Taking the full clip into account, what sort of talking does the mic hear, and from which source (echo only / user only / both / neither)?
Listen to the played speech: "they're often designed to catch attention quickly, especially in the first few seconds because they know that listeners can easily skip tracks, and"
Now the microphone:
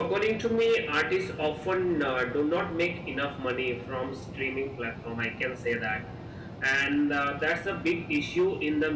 user only